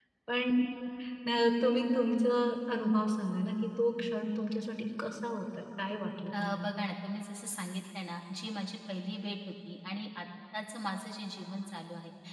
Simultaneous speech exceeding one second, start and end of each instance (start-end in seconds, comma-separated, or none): none